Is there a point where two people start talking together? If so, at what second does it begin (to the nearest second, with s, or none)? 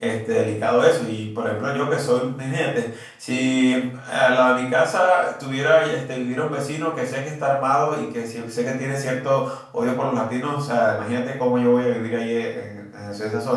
none